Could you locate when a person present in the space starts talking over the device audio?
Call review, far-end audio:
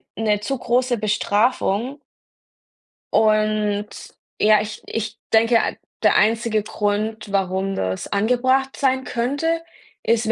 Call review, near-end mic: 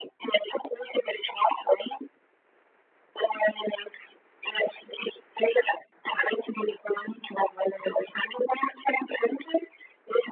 none

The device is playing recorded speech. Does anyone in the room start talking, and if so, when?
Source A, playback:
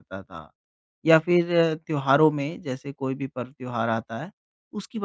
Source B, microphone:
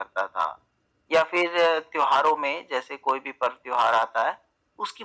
none

